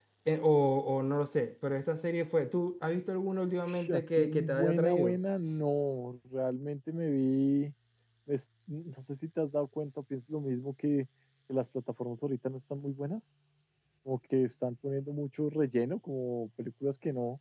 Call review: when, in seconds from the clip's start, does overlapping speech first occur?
3.7 s

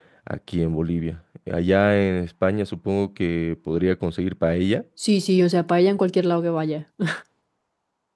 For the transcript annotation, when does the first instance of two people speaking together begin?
none

